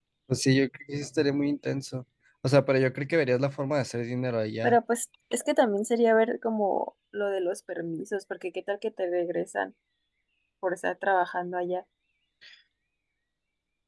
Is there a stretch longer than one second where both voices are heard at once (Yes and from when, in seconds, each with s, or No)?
No